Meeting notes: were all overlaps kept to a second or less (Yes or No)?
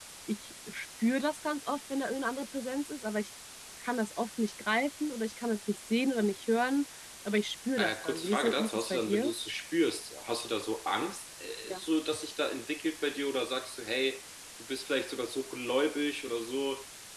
No